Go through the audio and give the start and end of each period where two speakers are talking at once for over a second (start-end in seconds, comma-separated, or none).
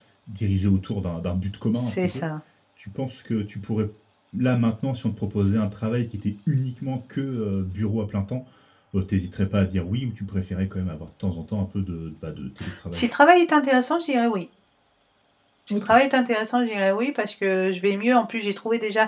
none